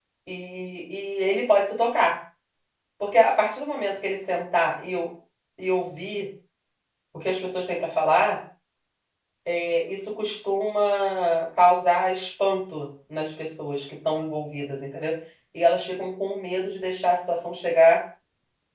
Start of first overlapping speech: none

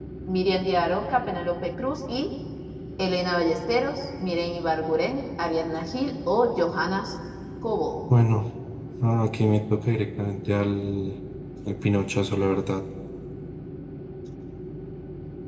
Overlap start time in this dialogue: none

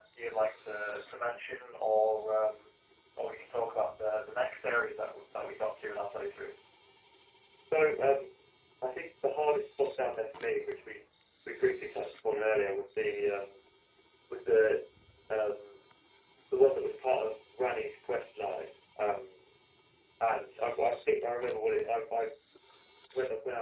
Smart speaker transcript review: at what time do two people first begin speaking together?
none

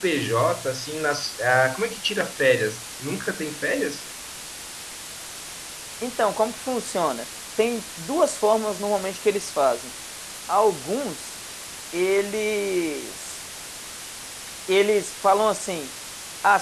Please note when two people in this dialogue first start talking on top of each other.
none

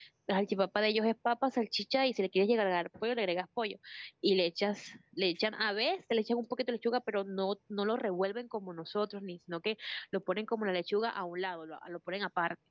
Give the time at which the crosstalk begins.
none

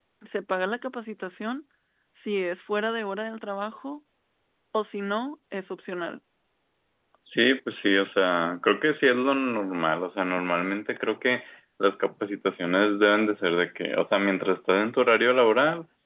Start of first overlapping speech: none

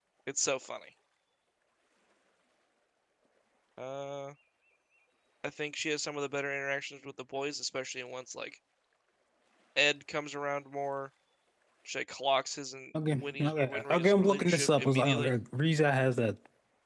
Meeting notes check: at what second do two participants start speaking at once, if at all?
13.2 s

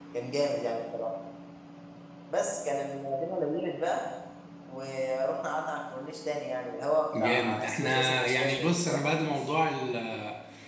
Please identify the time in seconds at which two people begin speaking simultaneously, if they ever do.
7.1 s

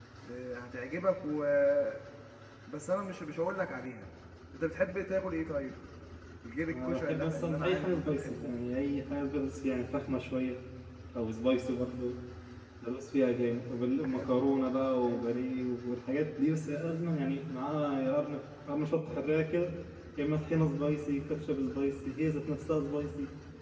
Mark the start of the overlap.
6.7 s

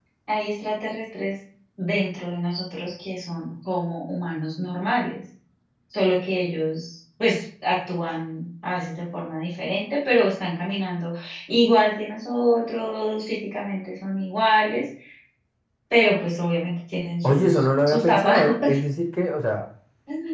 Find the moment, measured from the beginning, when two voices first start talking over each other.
17.2 s

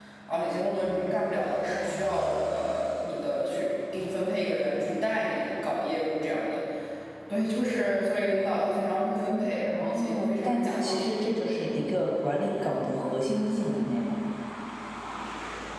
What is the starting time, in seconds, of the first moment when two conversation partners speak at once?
9.8 s

